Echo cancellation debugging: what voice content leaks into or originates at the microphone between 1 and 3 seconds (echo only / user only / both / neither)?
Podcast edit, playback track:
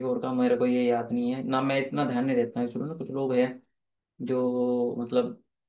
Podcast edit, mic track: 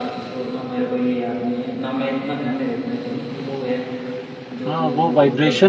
echo only